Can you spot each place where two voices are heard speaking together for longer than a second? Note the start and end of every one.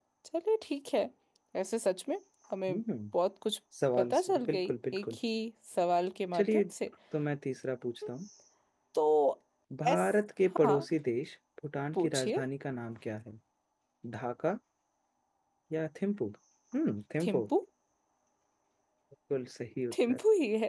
3.9-5.2

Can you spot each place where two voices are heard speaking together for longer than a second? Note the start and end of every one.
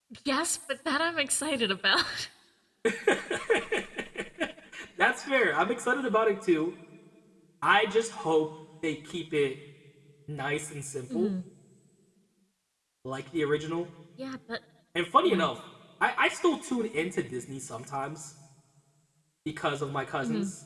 none

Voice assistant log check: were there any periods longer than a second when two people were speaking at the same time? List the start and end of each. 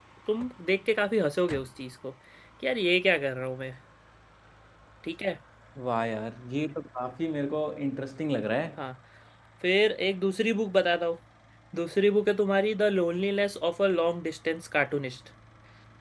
none

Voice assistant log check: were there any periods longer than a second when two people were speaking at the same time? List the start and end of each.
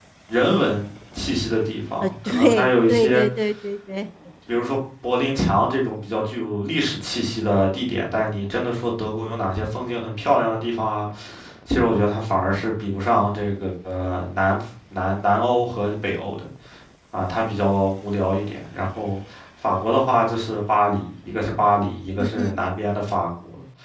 2.0-3.2

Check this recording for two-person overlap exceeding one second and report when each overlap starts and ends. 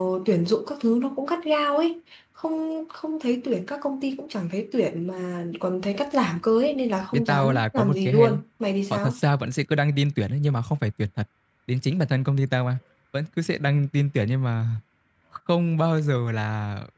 7.1-8.4

